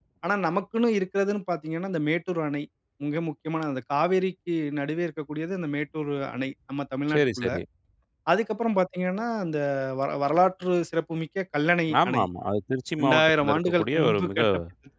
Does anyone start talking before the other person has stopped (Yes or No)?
Yes